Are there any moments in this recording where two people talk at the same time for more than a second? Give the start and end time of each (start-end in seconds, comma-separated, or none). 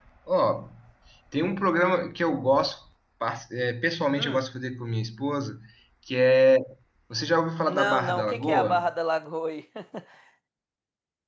7.6-8.9